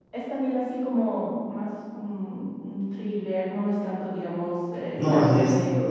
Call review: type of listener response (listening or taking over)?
taking over